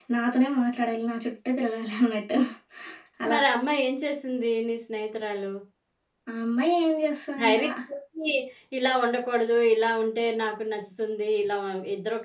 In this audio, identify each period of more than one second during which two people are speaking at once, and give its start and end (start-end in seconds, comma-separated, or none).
none